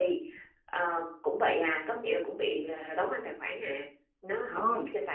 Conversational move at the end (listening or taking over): taking over